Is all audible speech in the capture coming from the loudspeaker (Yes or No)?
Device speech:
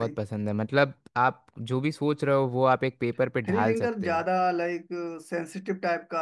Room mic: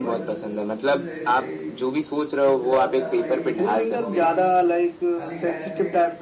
No